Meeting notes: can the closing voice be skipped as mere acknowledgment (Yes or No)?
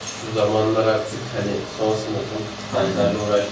Yes